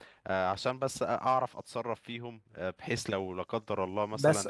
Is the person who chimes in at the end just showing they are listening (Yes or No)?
Yes